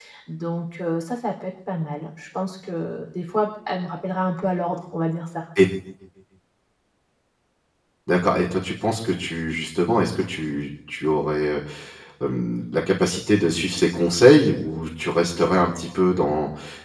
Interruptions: none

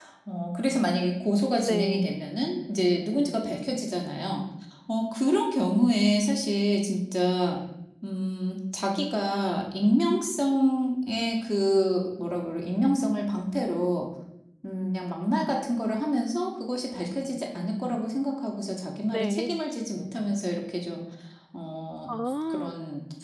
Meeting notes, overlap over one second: none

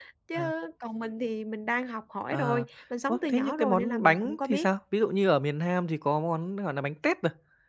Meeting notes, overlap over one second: present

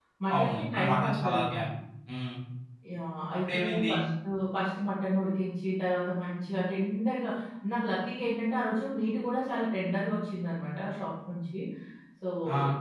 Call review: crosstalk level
present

